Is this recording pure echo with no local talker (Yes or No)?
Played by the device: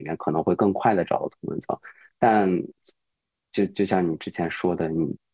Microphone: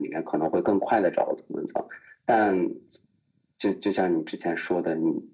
Yes